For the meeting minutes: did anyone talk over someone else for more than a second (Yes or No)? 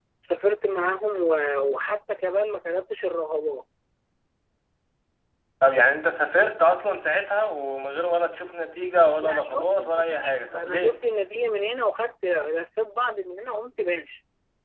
Yes